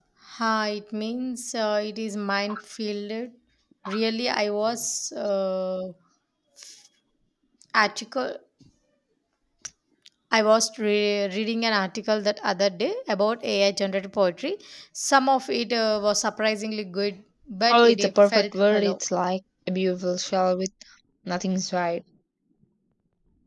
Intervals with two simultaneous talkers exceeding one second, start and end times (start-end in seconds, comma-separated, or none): 17.7-19.0